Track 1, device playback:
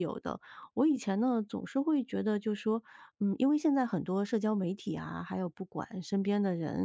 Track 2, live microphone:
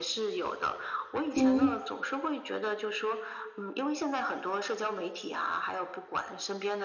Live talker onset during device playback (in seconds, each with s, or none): 1.3 s